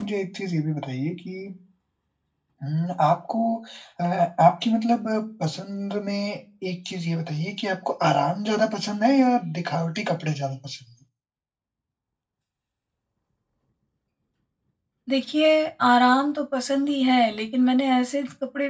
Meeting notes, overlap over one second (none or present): none